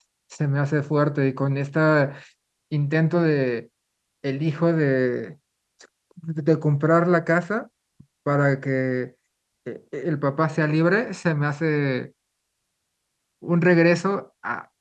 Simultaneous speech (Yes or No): No